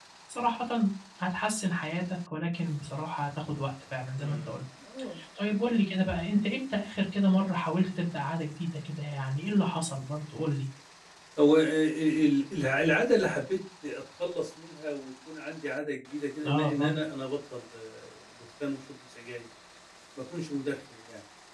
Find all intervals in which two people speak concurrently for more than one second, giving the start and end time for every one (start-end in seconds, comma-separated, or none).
none